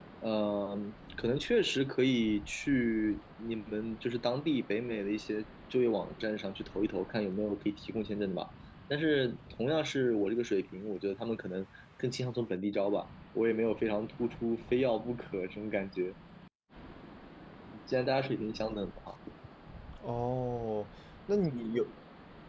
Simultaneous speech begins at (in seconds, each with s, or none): none